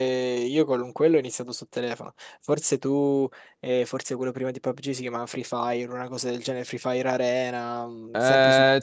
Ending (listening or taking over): taking over